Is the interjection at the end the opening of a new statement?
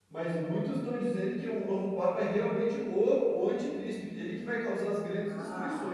Yes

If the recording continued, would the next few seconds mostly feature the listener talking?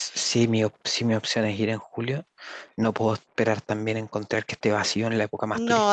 Yes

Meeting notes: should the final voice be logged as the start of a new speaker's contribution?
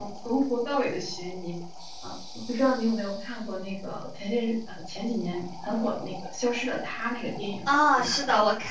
Yes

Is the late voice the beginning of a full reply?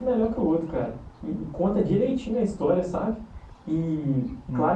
No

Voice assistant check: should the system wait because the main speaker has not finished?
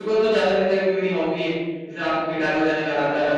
No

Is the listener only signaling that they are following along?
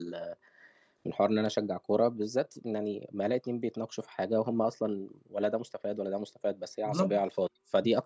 Yes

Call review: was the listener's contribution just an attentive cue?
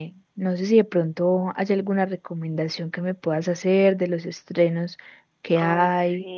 No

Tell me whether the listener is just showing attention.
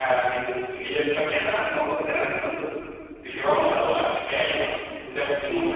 Yes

